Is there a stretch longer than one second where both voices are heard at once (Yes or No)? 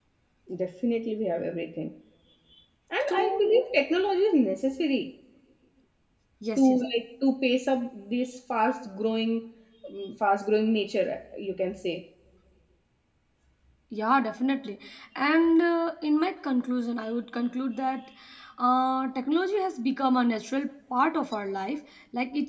No